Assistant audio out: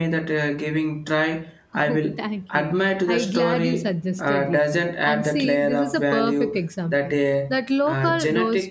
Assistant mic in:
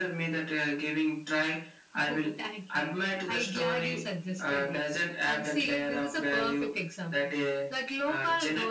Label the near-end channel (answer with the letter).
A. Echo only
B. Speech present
A